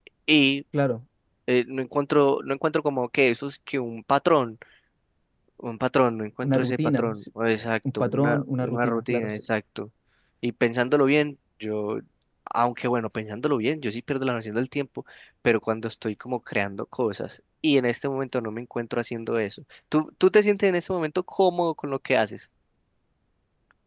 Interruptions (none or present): present